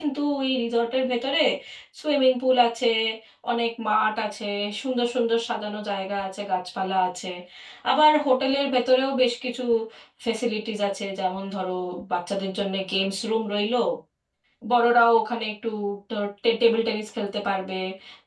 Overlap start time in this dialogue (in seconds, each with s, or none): none